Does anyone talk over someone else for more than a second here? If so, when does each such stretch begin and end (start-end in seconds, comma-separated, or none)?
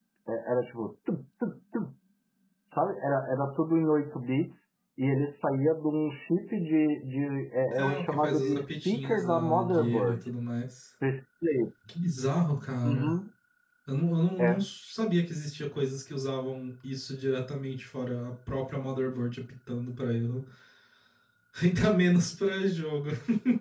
7.7-10.2